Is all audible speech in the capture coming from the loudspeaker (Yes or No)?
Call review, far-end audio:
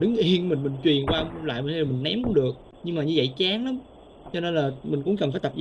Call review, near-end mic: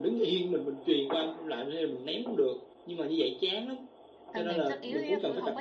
No